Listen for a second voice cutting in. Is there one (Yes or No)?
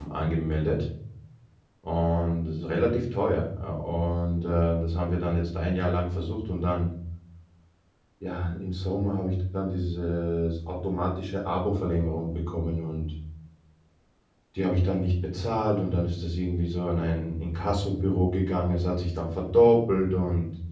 No